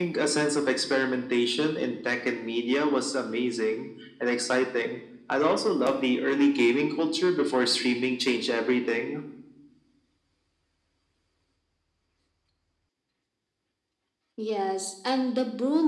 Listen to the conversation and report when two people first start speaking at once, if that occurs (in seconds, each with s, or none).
none